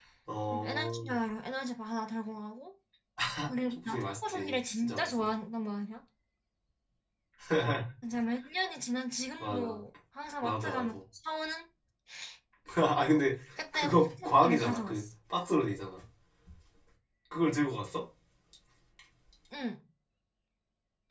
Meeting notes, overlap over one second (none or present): present